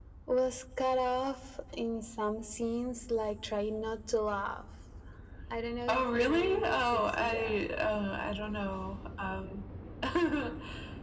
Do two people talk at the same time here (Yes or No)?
Yes